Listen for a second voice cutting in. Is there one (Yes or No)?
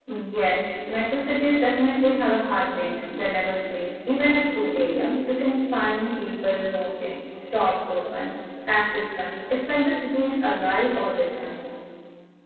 No